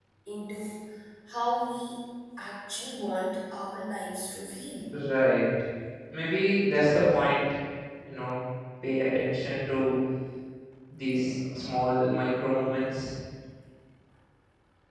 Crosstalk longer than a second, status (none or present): none